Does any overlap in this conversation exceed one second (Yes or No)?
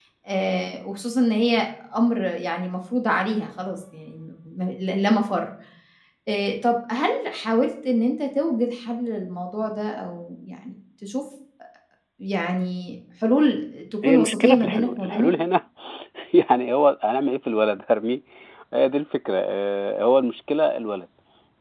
Yes